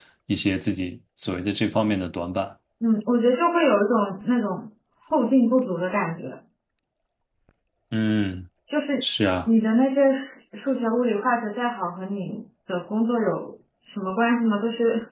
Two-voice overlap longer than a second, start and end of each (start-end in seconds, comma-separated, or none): none